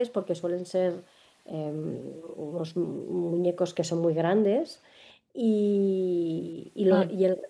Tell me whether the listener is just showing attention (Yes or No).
Yes